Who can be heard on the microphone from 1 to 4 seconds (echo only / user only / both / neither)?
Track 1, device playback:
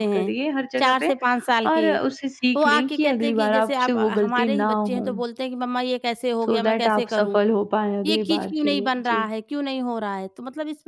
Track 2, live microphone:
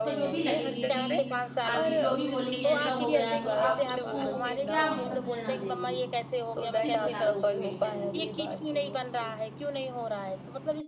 both